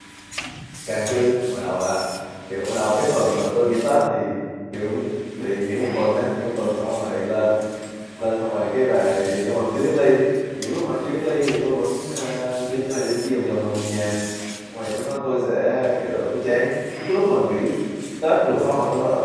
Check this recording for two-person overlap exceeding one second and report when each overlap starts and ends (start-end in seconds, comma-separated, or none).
none